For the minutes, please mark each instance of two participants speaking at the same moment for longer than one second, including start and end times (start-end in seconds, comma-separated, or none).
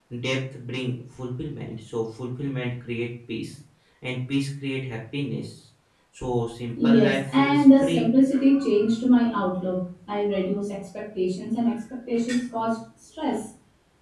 6.8-8.1